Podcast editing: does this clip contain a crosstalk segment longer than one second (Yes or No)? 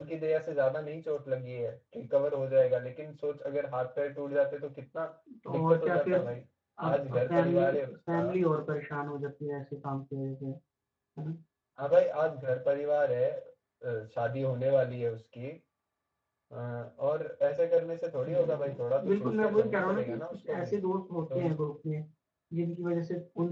Yes